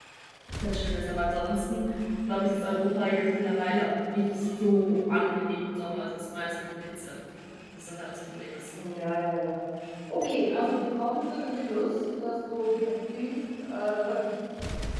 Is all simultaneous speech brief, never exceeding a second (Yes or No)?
Yes